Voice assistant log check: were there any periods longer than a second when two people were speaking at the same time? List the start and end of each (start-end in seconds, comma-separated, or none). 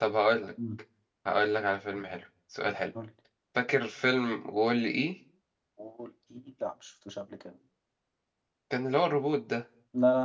none